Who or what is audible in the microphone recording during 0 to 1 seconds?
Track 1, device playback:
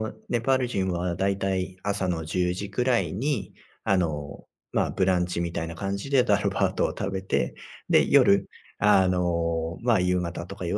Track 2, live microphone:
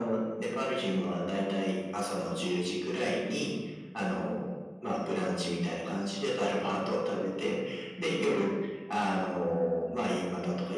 echo only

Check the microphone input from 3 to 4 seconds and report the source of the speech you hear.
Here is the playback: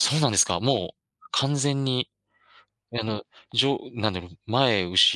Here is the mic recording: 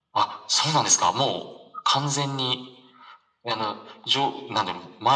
echo only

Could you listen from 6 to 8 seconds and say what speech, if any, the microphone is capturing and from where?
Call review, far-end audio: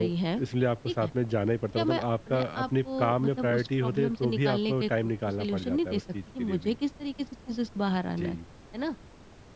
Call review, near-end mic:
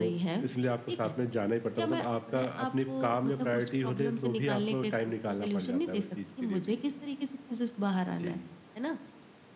echo only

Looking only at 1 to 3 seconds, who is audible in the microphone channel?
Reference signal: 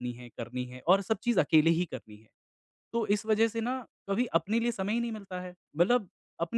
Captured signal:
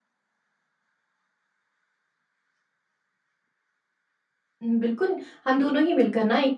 neither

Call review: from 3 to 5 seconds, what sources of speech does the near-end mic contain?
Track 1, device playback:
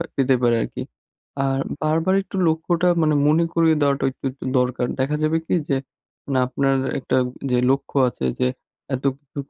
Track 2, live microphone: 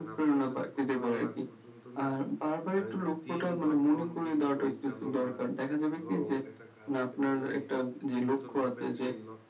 both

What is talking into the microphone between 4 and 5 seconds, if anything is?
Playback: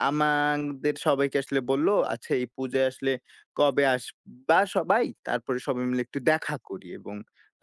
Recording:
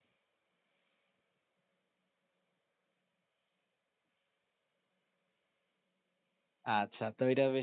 neither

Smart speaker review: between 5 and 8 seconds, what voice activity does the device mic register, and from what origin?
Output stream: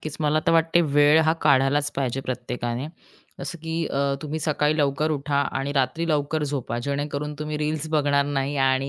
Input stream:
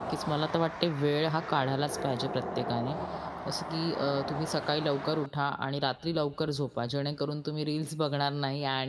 echo only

